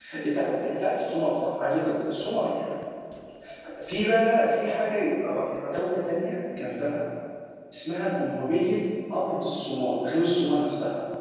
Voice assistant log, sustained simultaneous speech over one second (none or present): none